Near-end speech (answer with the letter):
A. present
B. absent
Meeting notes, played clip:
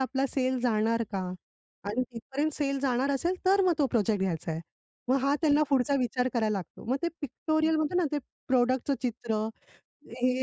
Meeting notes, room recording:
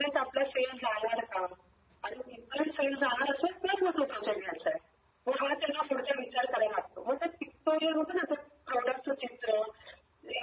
B